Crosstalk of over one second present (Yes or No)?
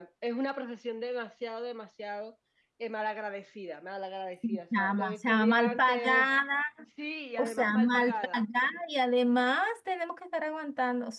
Yes